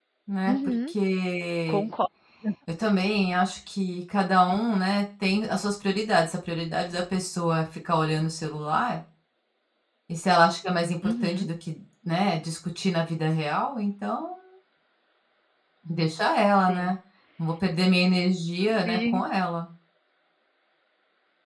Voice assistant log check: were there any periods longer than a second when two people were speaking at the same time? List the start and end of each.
none

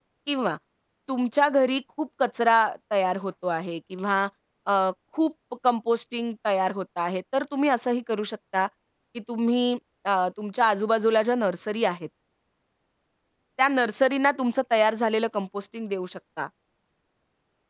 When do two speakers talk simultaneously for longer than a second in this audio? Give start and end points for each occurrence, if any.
none

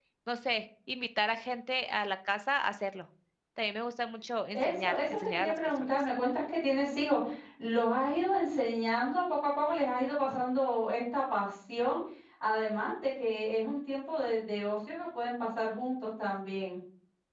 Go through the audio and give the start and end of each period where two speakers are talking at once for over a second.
4.5-6.1

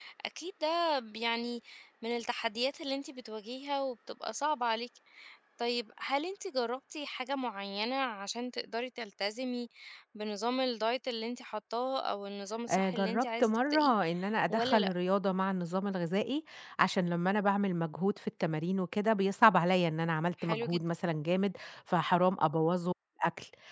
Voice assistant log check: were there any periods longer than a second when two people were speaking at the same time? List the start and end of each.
12.7-13.9

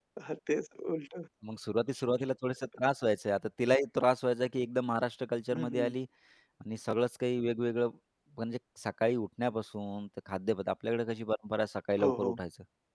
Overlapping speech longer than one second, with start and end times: none

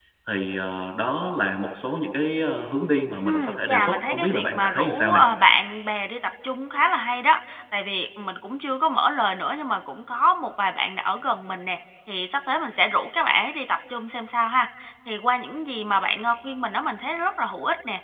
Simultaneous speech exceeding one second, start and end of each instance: 3.2-5.2

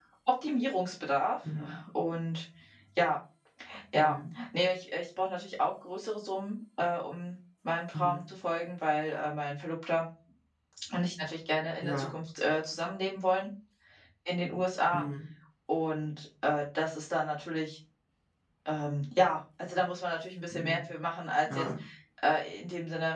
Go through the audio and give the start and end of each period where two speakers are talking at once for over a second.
none

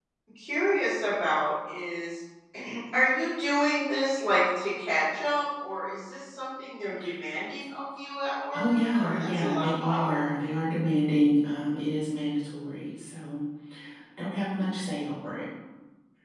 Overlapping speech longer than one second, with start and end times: 8.5-10.2

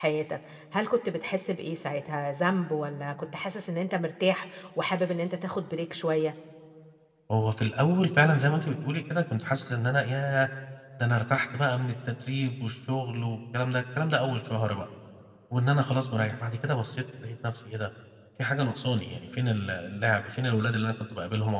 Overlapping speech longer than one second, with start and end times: none

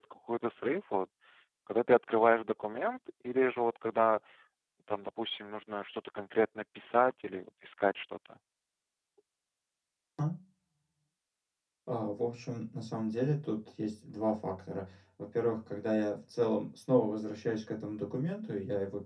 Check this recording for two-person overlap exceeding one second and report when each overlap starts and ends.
none

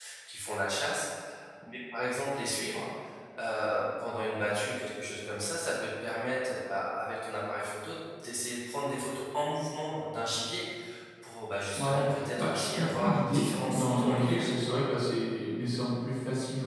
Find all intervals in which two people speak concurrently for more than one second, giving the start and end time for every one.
11.8-14.5

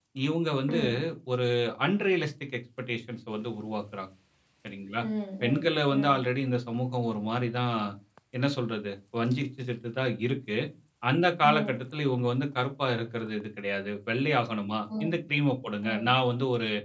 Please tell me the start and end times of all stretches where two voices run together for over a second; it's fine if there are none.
none

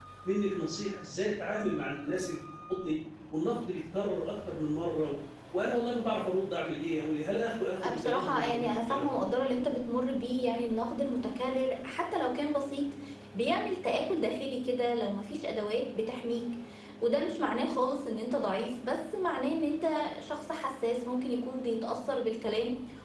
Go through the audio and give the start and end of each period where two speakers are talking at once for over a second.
7.8-9.1

